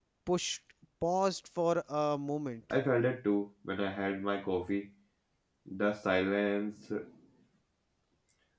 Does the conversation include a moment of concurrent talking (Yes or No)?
No